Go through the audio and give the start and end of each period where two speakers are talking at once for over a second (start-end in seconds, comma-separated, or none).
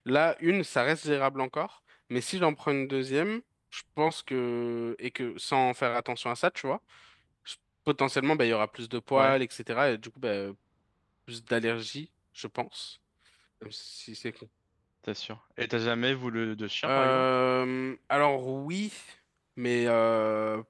none